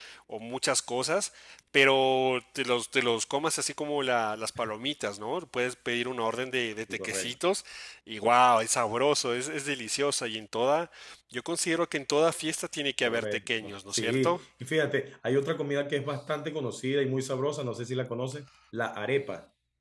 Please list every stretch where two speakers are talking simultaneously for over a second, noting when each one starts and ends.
13.1-14.4

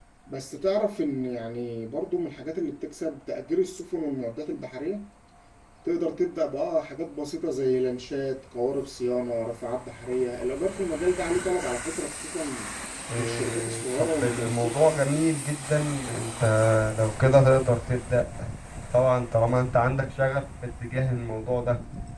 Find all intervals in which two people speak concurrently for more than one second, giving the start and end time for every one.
13.2-14.8

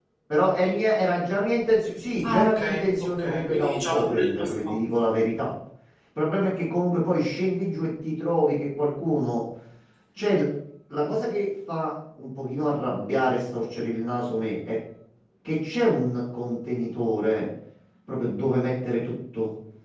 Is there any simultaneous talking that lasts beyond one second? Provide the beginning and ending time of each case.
2.2-4.8

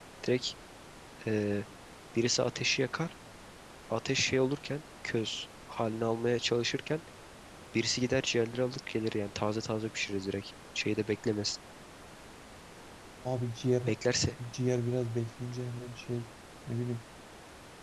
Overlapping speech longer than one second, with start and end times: none

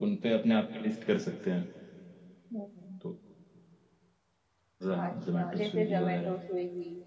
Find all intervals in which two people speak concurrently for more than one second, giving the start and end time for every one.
5.0-6.3

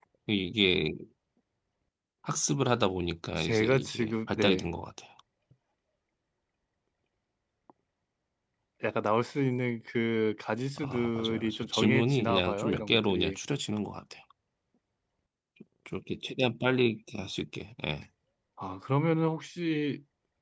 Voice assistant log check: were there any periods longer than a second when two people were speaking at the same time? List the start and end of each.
3.4-4.7, 10.8-13.4

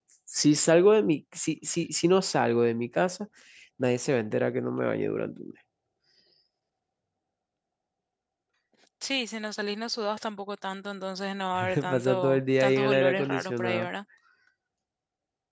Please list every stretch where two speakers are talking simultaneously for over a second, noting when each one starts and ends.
11.7-13.9

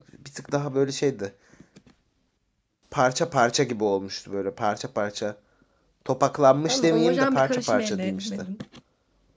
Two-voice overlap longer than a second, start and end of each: 6.7-8.3

